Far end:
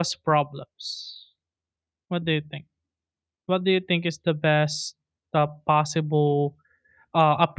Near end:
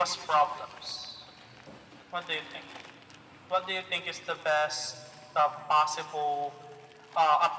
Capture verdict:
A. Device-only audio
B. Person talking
A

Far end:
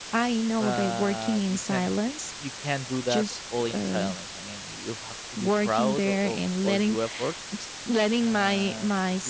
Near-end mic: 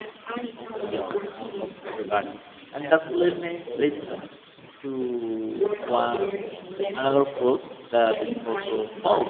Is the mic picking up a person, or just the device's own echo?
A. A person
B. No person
A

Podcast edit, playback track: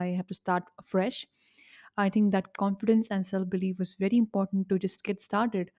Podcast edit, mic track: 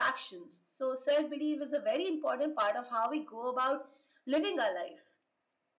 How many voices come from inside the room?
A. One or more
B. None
A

